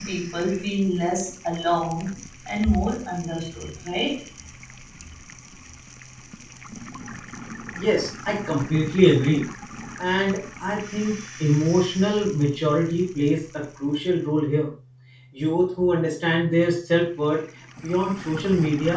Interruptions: none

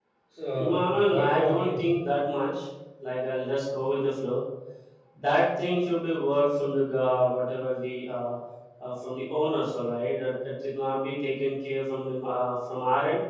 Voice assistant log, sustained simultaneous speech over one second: present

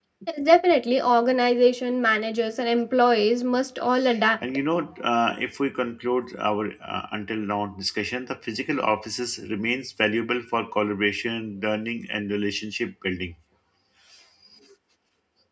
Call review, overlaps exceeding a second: none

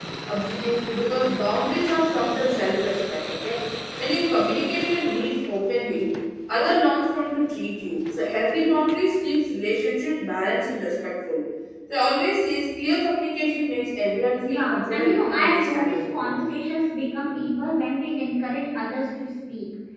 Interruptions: present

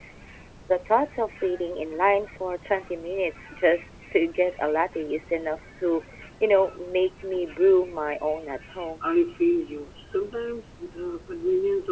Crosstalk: none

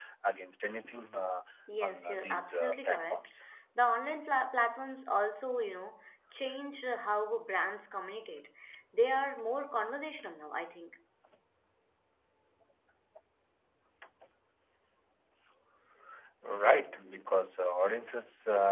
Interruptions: present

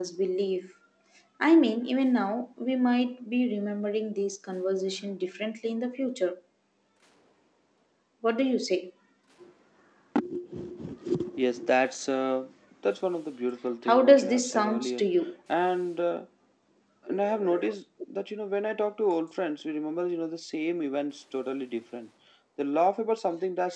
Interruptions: present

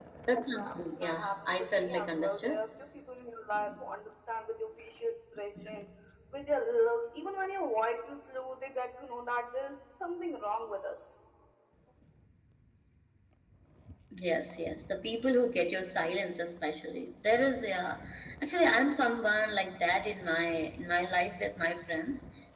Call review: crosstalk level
present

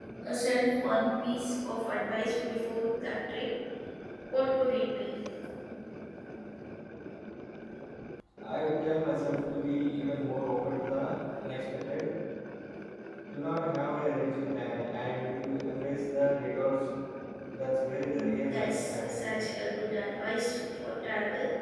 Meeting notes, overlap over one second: present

